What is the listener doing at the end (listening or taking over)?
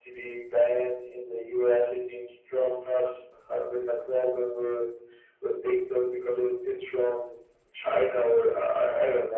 taking over